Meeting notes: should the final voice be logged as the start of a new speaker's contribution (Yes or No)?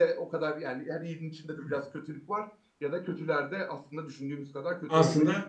Yes